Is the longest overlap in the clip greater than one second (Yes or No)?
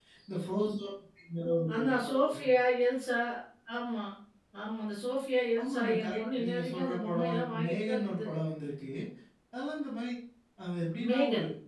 Yes